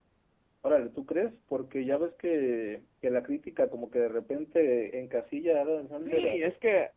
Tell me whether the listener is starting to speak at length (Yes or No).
Yes